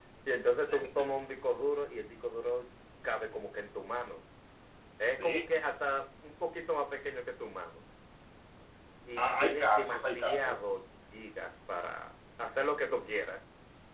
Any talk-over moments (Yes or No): Yes